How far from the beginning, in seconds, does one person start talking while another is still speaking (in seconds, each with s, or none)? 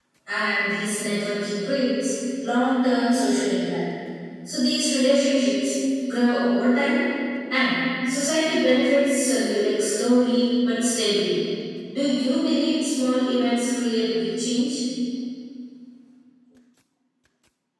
none